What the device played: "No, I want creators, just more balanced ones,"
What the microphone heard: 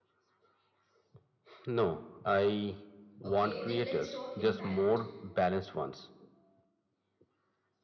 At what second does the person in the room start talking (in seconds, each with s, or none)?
3.2 s